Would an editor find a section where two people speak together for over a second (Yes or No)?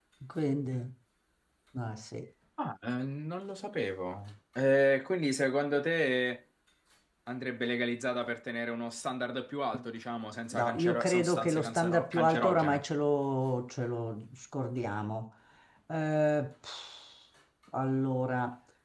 Yes